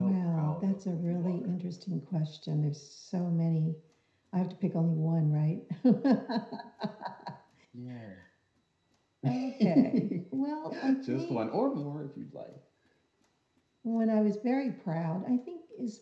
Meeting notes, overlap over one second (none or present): present